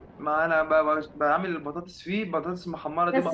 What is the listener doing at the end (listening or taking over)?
taking over